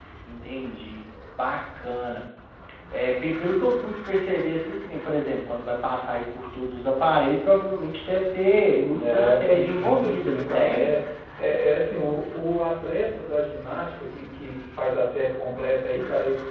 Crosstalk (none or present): present